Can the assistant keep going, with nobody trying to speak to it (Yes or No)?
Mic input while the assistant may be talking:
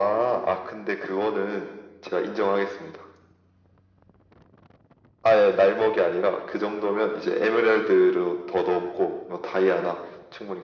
Yes